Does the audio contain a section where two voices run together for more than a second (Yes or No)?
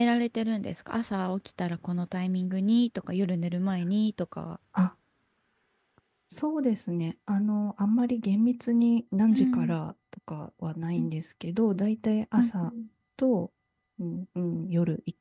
No